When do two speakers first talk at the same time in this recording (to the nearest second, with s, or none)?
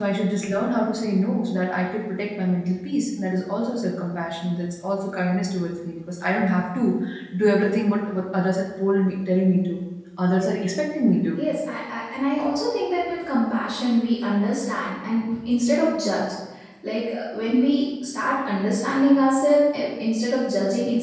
none